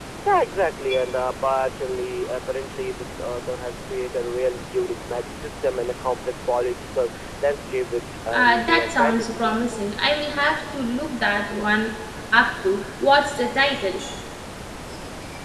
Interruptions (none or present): present